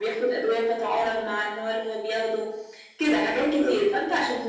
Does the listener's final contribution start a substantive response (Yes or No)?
No